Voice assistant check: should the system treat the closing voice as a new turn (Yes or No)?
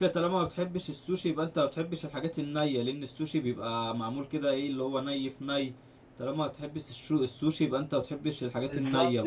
Yes